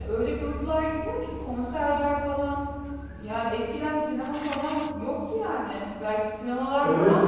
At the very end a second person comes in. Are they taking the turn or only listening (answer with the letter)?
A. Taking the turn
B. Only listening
A